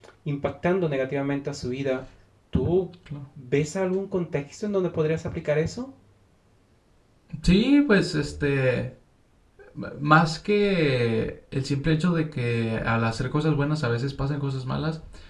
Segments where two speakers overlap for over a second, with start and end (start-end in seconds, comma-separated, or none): none